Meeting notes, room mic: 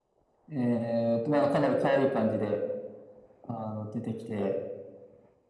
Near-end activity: none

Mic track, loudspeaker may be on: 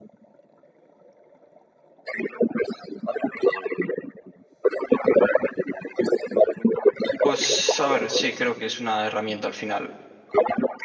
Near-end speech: present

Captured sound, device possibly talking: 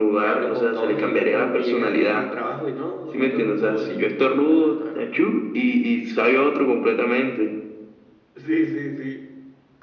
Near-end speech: none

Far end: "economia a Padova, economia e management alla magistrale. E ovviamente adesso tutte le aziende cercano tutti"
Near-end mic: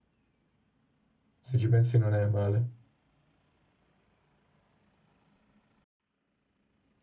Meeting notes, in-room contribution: present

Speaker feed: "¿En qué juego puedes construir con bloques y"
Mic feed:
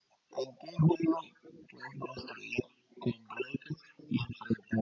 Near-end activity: none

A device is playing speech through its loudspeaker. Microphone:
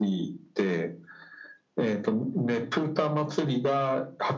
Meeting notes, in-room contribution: none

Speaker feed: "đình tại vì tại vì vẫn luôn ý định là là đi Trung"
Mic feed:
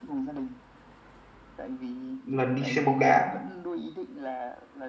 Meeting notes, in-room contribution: present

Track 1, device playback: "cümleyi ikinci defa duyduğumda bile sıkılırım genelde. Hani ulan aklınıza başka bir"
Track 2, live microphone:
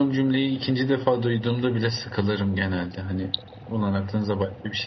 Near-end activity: none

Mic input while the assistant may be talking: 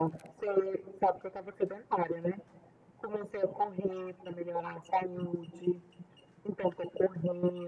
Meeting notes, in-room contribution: none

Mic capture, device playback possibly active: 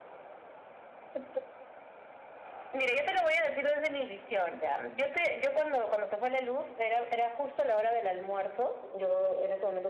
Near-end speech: none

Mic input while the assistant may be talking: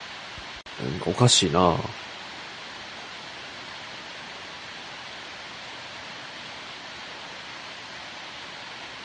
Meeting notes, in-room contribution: present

